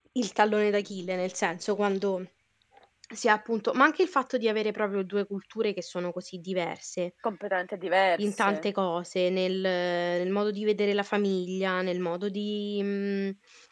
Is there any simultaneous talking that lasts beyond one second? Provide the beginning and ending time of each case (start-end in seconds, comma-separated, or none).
none